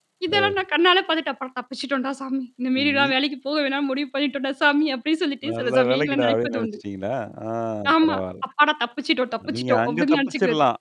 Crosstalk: present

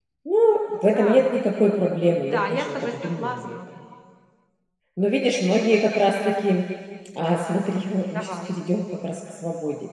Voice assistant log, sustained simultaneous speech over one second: present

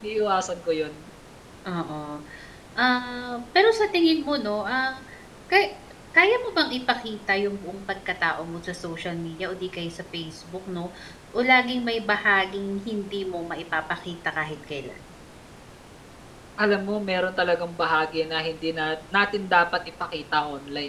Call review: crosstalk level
none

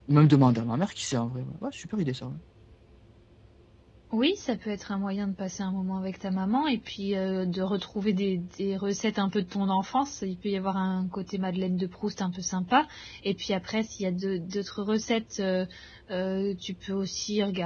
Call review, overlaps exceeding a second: none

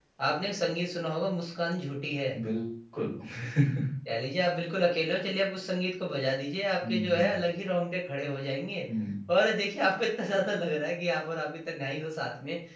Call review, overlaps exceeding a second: none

